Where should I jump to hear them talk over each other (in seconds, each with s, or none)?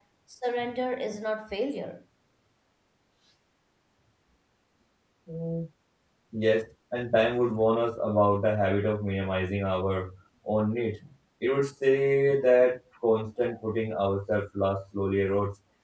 none